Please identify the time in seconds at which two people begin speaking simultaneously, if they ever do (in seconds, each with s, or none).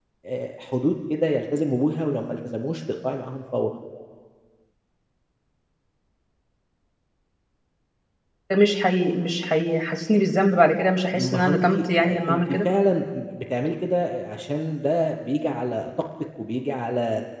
11.1 s